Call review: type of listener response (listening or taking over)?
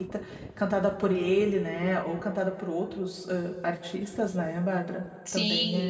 taking over